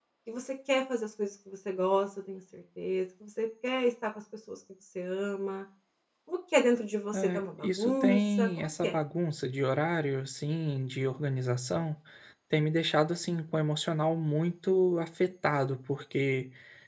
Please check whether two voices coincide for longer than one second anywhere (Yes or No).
Yes